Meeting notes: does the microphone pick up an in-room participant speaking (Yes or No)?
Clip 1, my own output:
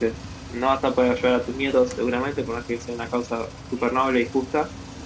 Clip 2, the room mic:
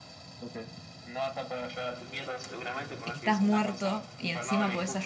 Yes